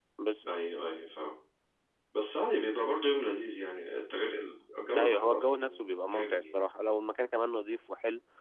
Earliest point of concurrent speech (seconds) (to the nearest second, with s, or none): 5 s